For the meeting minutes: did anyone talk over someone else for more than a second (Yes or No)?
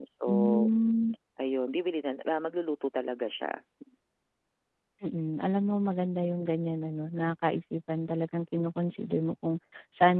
No